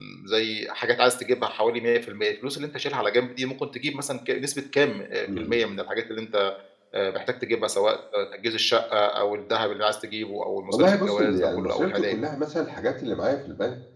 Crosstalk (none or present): present